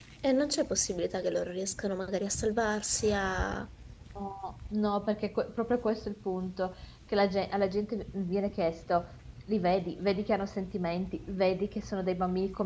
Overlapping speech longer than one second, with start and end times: none

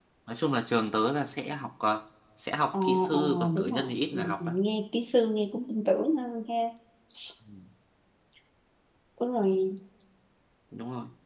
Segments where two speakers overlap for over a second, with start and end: 2.7-4.5

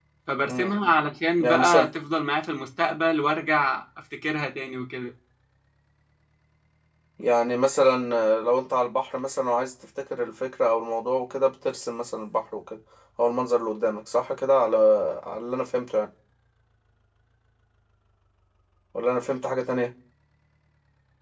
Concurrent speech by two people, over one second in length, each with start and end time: none

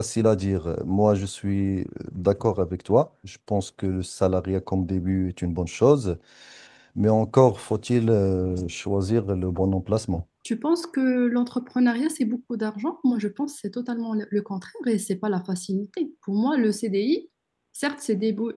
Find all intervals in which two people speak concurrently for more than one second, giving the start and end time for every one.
none

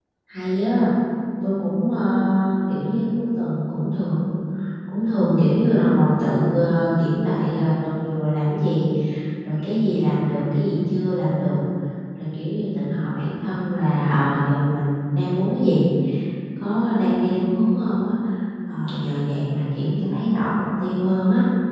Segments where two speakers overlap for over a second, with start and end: none

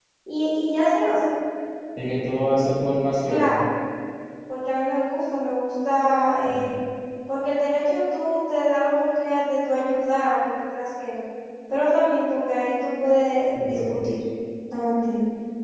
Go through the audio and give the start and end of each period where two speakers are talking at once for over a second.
none

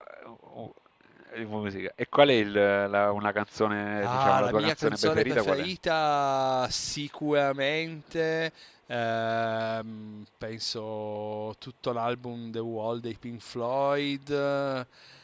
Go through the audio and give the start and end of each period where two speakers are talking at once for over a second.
4.0-5.7

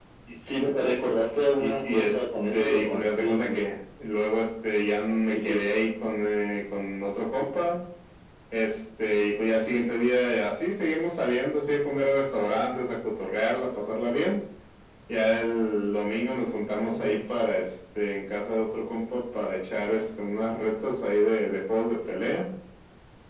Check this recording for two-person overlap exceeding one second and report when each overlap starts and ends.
1.6-3.6

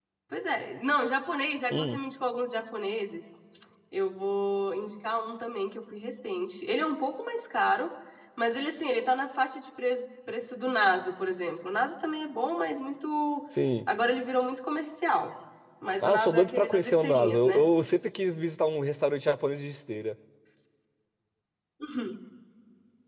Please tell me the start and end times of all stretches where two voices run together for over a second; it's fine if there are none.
16.0-17.6

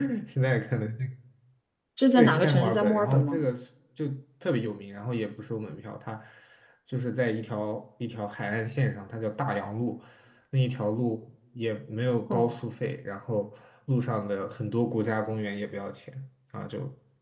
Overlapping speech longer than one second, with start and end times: 2.2-3.5

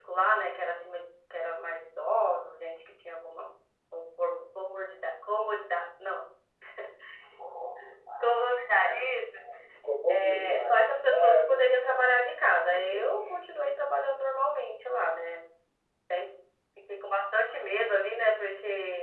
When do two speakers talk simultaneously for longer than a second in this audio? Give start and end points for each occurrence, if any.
10.2-11.5

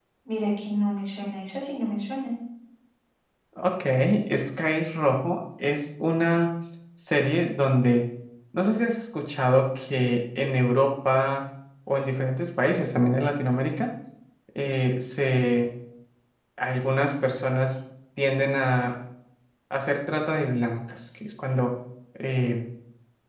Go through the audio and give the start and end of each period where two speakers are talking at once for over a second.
none

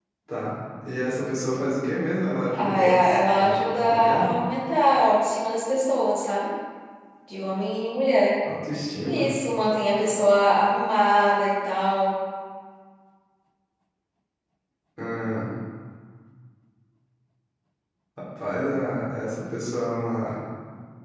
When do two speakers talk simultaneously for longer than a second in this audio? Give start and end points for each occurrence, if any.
2.5-4.3

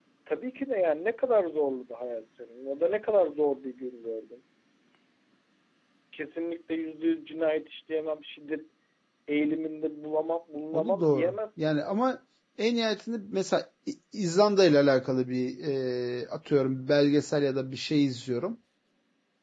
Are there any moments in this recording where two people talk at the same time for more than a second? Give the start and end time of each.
10.7-12.0

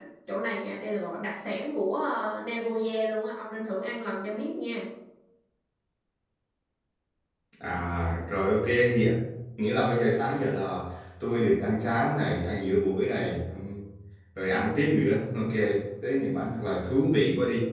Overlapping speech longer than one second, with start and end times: none

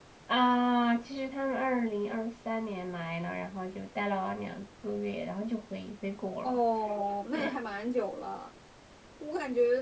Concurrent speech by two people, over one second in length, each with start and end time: none

